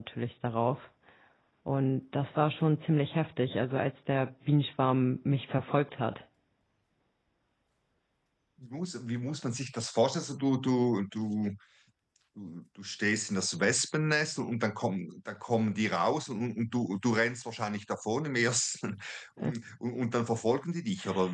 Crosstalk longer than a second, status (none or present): none